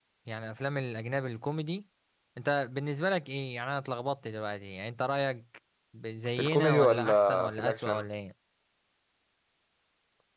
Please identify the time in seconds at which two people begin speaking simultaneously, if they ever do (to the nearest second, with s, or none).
6 s